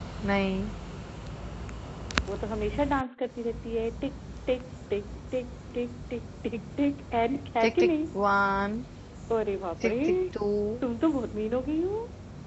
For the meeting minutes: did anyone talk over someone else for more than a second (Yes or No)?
No